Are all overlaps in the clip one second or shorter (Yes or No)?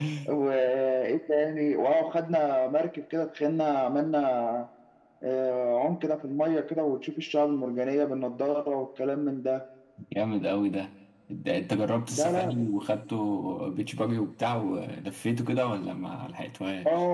Yes